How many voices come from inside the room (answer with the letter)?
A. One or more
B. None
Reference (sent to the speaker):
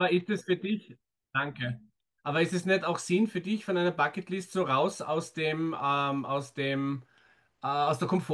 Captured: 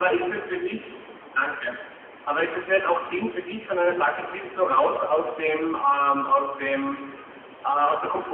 B